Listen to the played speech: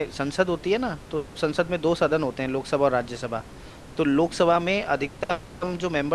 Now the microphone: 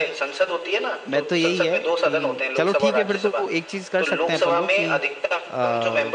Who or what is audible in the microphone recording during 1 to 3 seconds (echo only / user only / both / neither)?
both